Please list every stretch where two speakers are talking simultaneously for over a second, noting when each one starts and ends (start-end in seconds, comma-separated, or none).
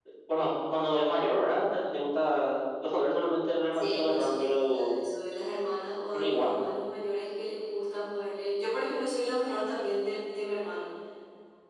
3.7-4.9